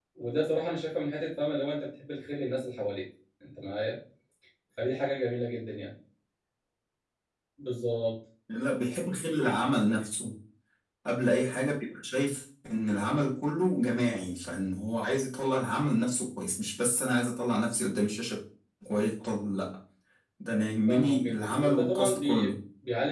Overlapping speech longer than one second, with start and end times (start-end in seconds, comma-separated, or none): 20.9-22.6